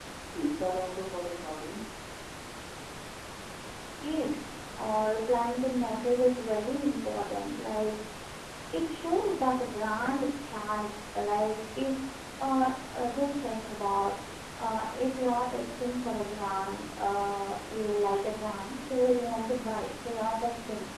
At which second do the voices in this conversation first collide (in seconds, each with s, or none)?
none